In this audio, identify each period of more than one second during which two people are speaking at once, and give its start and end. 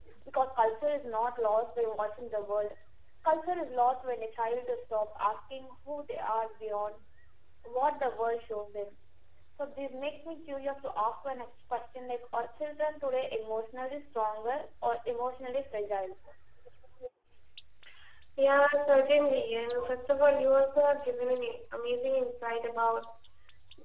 none

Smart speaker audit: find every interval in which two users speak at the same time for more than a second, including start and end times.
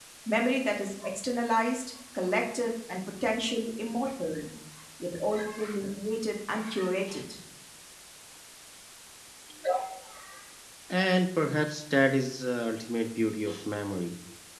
none

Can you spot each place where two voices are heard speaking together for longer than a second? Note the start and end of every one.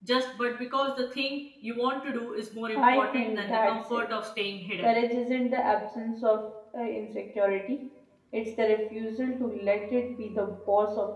2.8-4.1

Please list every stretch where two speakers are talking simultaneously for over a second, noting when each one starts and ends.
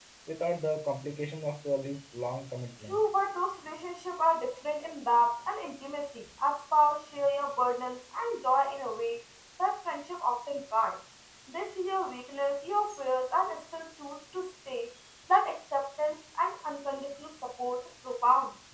none

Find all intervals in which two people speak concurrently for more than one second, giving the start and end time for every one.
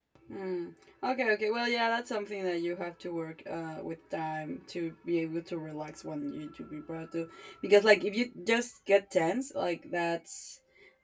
none

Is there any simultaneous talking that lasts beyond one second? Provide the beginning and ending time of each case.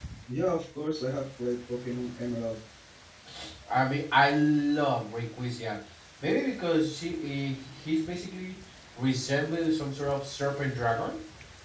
none

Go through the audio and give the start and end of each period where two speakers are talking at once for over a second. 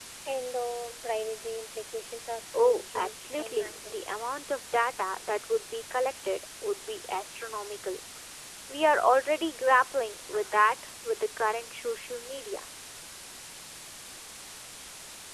2.5-4.0

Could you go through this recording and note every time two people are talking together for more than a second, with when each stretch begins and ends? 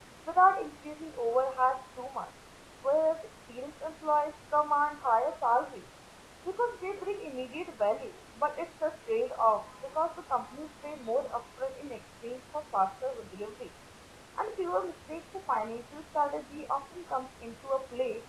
none

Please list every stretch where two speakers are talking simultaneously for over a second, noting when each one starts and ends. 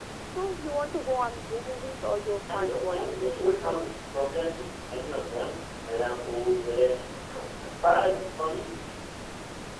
2.5-3.9

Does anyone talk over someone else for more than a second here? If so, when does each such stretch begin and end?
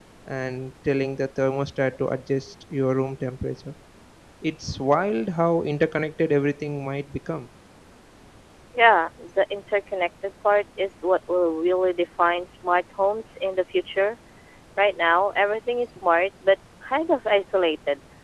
none

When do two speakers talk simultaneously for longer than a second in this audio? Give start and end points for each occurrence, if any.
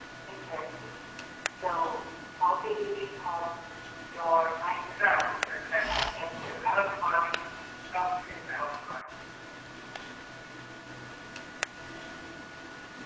none

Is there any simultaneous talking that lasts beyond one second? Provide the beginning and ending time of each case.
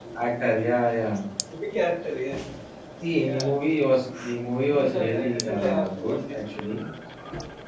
4.7-6.4

